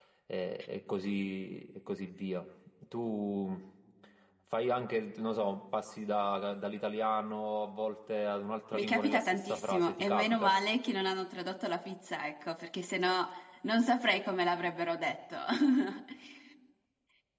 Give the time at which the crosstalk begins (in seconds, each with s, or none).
8.7 s